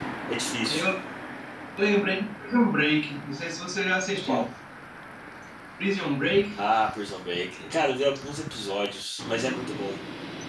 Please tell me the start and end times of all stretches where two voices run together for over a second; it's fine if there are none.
none

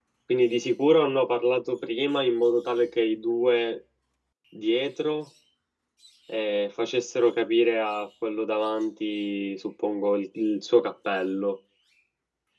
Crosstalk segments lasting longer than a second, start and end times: none

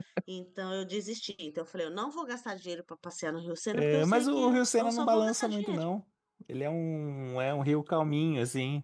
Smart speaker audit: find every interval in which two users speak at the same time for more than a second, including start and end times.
3.7-5.8

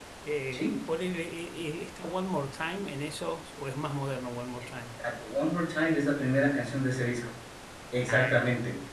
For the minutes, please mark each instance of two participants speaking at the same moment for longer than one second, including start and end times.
none

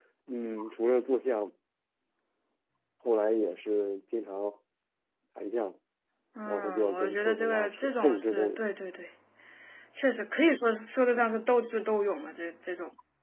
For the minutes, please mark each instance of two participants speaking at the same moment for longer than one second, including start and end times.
6.4-8.6

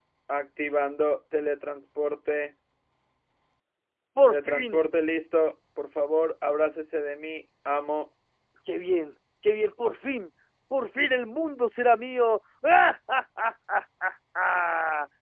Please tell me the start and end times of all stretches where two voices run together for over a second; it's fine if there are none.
none

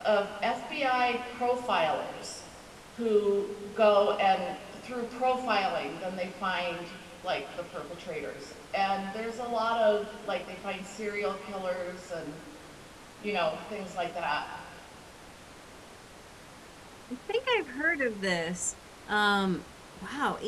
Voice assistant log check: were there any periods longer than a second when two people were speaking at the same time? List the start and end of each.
none

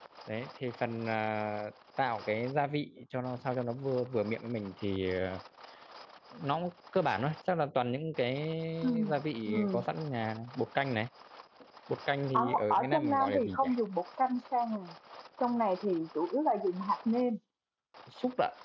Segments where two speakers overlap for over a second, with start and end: 12.3-13.7

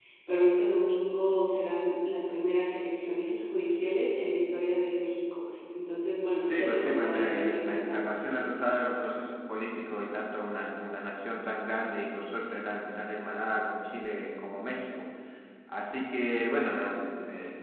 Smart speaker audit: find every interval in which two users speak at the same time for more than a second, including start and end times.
6.4-8.1

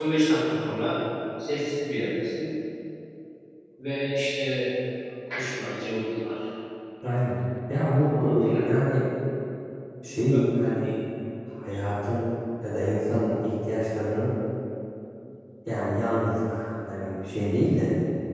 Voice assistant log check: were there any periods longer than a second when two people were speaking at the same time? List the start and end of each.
none

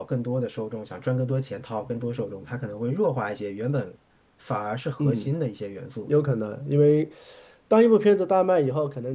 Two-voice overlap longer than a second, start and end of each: none

